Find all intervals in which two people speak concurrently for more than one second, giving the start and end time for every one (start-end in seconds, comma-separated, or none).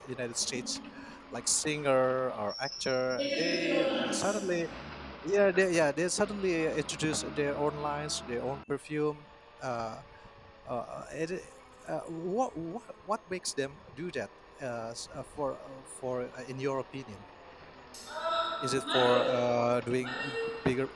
3.1-4.4